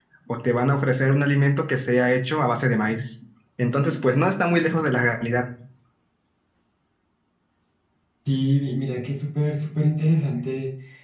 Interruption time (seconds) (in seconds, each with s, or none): none